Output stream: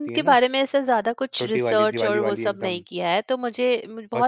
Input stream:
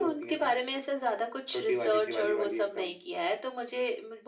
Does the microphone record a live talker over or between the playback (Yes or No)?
No